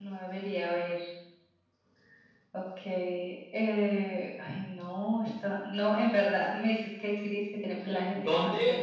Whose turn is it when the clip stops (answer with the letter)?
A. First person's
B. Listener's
B